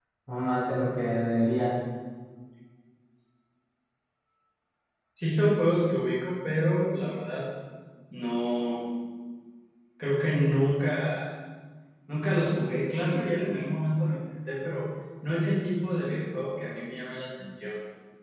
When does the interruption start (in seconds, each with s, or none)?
none